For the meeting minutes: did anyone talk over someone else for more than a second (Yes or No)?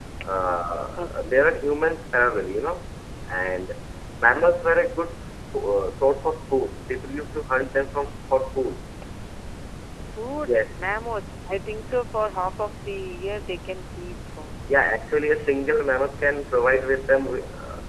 No